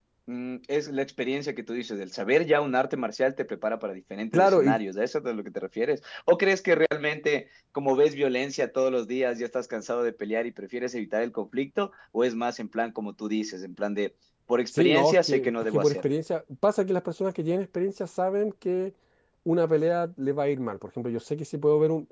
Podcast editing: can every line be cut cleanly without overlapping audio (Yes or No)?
No